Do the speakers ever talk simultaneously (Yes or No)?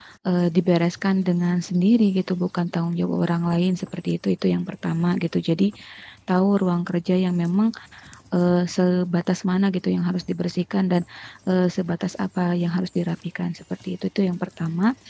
No